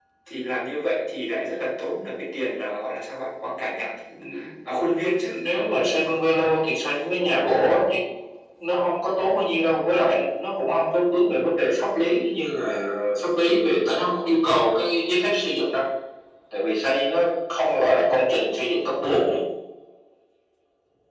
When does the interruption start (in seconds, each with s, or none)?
none